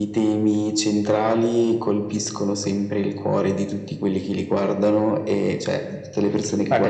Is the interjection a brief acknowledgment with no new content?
No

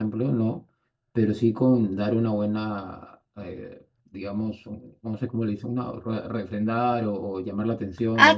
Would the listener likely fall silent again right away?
No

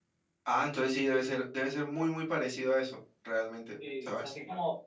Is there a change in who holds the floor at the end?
Yes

